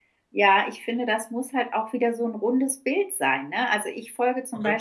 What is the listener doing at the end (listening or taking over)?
listening